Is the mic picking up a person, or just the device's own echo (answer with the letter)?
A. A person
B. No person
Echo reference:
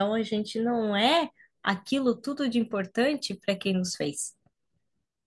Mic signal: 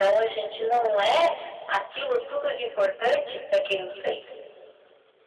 B